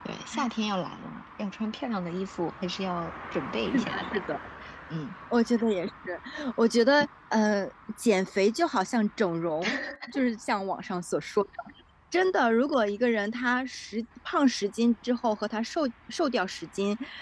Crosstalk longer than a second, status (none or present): none